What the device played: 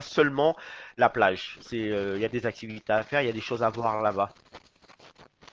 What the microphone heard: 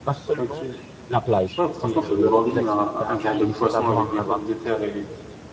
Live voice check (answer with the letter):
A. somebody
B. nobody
A